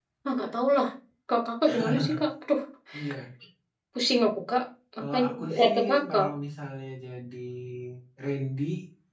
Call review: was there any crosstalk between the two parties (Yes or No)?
Yes